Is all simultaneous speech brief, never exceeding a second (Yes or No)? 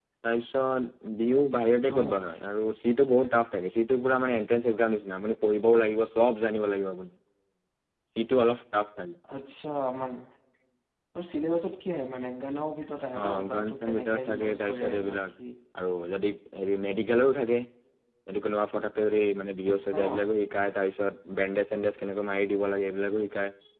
No